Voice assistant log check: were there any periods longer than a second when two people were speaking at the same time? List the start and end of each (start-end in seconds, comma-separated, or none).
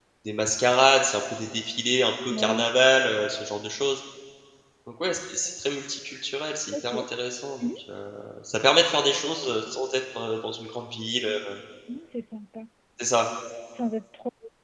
none